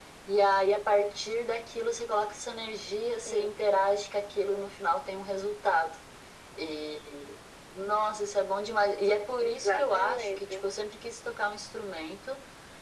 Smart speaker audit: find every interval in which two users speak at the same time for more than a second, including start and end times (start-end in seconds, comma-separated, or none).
9.4-10.7